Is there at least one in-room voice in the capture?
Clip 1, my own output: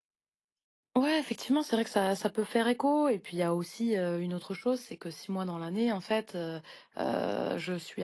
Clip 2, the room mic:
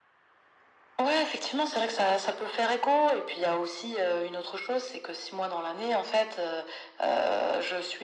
No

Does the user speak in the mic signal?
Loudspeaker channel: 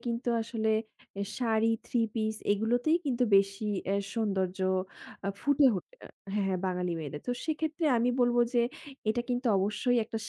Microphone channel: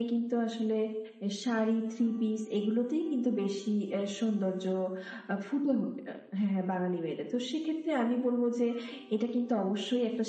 No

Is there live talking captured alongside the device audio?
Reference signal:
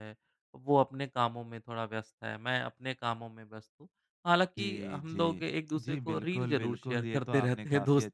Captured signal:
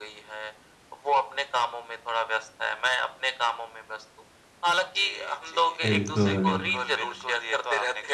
Yes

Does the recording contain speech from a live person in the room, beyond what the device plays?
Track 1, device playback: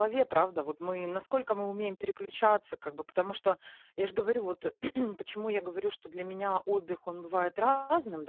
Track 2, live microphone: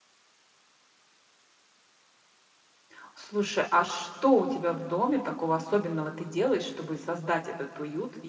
Yes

